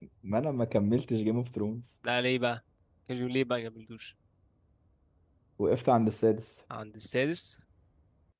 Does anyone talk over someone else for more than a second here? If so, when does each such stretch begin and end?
none

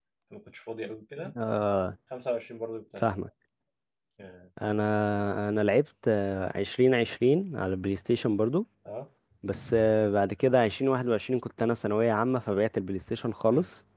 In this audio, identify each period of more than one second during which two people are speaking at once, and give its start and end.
none

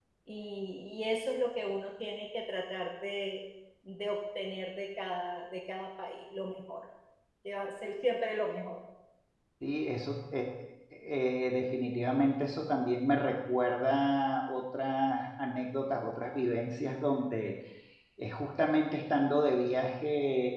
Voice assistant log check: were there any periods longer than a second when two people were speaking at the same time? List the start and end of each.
none

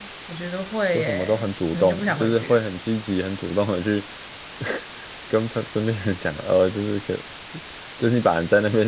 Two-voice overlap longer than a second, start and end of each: 0.9-2.6

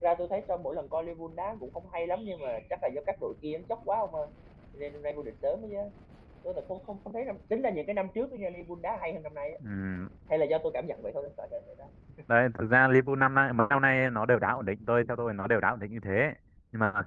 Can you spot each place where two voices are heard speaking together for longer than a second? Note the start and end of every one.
none

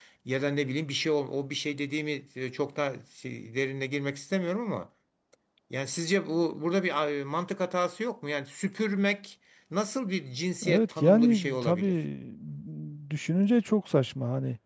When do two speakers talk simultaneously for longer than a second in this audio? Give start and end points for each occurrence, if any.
10.7-11.9

